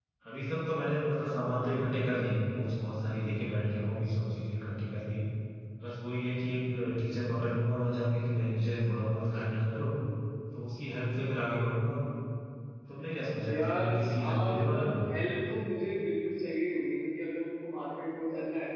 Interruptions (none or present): present